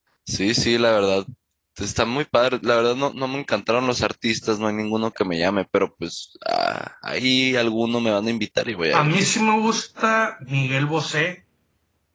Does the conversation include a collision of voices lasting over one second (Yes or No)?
No